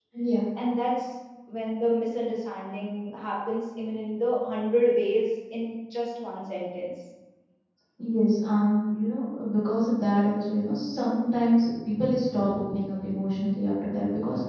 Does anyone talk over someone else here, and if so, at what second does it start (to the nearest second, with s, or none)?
none